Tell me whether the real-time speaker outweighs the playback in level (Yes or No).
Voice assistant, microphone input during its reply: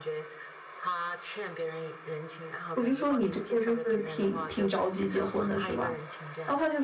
Yes